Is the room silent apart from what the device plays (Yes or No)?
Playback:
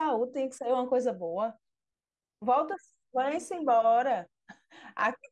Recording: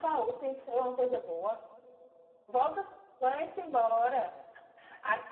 Yes